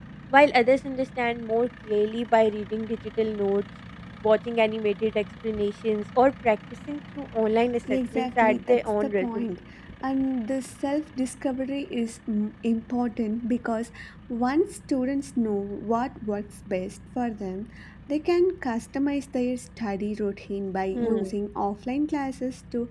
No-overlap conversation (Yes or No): No